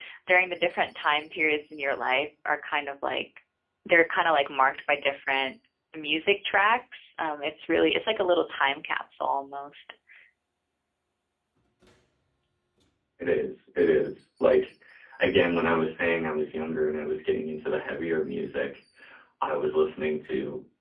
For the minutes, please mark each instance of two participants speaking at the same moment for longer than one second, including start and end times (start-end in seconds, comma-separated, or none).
none